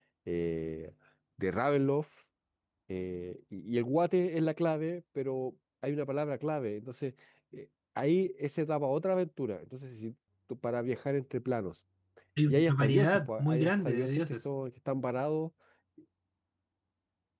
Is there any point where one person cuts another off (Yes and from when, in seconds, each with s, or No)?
Yes, from 12.5 s